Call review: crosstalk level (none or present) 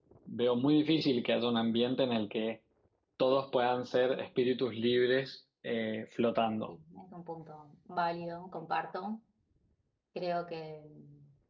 none